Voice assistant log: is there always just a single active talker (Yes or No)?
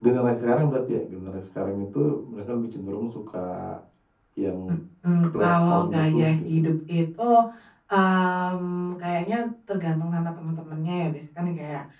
No